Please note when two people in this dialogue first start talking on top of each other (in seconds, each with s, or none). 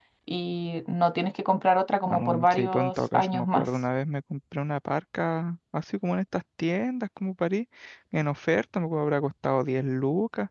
2.0 s